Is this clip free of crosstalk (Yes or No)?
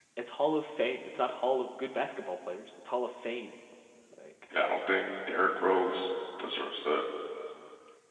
Yes